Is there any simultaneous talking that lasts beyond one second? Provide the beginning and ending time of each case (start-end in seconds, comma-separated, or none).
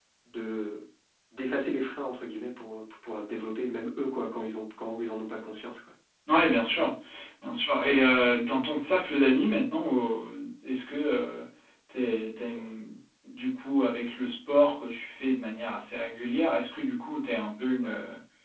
none